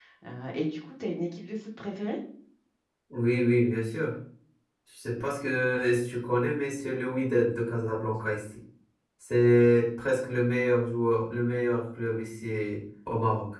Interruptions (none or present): none